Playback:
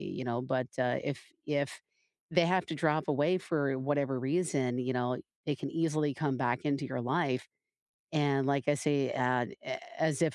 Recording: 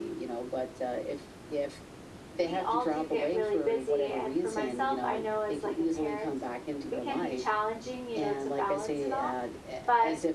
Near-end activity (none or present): present